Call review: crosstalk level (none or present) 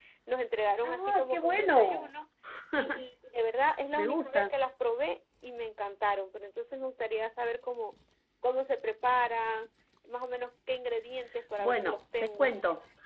present